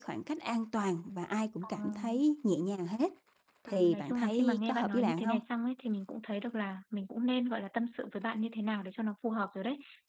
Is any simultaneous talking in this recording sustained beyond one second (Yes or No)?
Yes